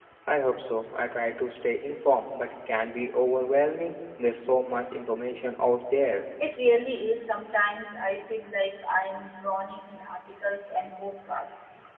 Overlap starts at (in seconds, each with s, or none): none